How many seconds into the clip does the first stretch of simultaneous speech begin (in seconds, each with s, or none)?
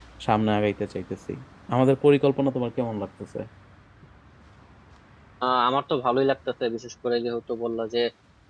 none